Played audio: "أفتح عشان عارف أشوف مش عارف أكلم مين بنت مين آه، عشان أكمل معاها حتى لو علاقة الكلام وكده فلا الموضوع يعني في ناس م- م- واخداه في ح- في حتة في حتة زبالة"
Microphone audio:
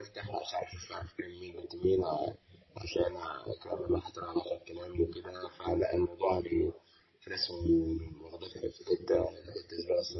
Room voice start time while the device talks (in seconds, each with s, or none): none